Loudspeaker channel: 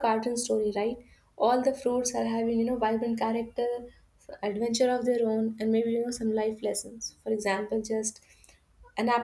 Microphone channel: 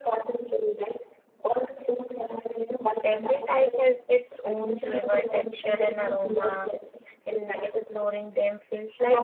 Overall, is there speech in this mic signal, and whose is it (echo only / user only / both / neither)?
both